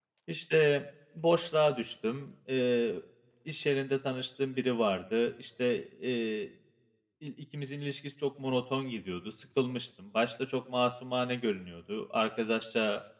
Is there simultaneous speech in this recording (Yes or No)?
No